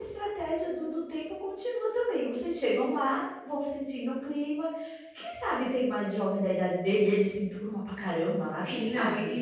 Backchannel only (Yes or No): No